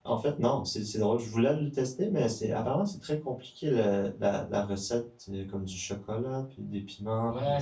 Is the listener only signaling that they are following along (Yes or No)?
No